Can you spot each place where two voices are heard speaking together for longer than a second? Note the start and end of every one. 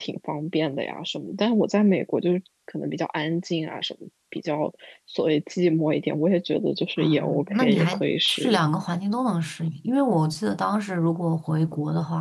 7.0-8.7

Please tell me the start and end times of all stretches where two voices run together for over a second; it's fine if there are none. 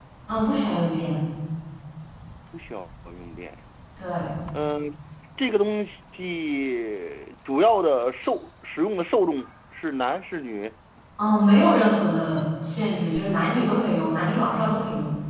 none

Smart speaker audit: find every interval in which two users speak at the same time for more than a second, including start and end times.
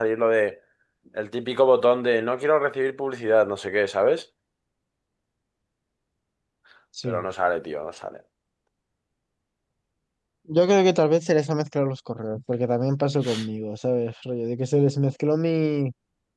none

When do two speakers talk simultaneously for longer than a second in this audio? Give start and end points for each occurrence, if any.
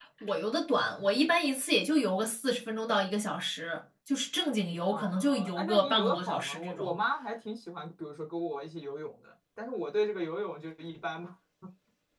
4.9-6.9

